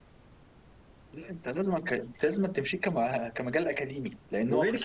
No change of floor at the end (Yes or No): No